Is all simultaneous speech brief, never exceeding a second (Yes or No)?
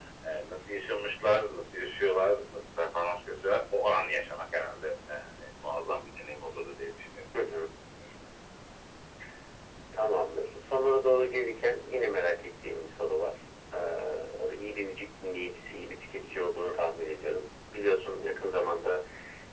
Yes